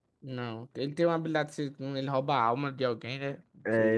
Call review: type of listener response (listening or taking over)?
taking over